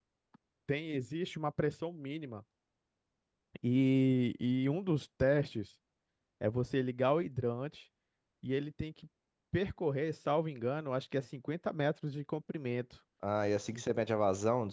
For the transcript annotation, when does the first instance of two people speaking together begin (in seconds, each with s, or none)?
none